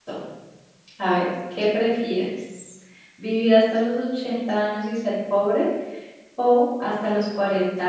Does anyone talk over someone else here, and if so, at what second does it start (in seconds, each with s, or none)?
none